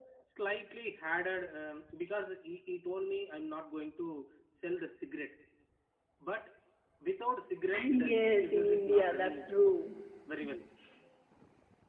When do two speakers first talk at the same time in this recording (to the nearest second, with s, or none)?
8 s